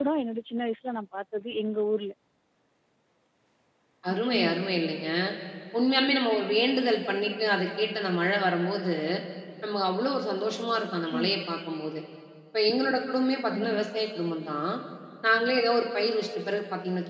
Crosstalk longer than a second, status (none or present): none